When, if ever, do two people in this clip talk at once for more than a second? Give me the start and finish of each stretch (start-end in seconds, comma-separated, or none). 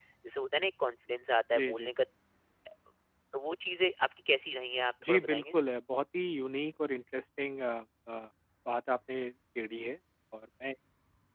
none